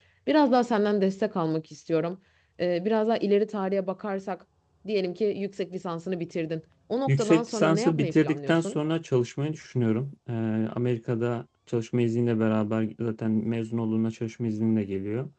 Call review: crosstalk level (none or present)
present